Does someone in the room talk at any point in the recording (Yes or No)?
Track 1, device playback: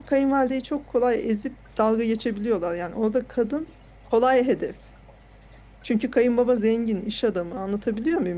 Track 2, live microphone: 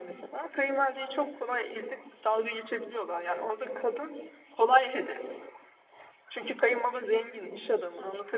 No